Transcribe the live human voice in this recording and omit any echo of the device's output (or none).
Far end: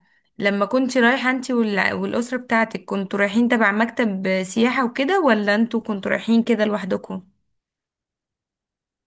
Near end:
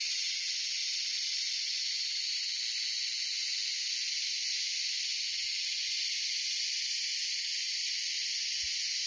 none